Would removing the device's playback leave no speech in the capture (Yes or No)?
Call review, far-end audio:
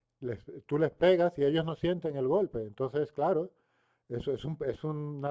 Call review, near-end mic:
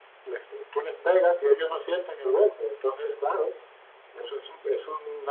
Yes